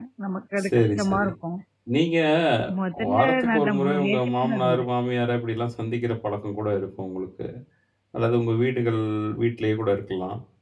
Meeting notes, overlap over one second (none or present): present